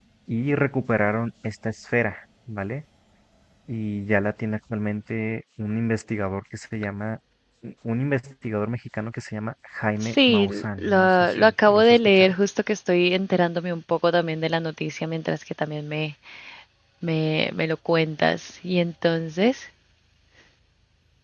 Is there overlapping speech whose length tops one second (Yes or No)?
Yes